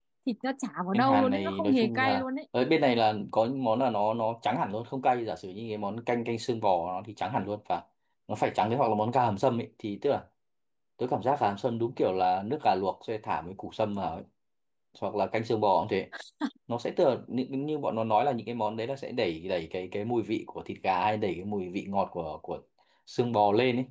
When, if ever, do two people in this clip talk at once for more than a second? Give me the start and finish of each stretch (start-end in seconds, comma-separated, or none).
0.9-2.2